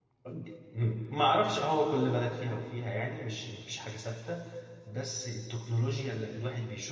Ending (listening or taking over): listening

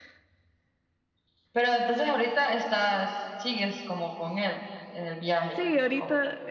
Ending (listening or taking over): taking over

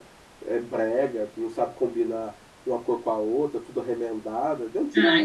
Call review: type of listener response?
taking over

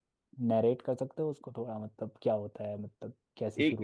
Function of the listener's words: taking over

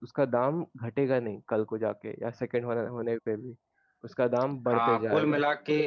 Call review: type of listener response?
taking over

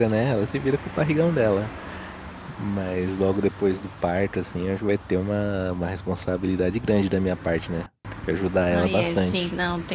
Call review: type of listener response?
taking over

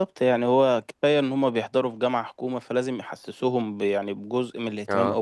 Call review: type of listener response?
listening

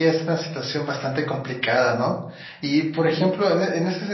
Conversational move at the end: listening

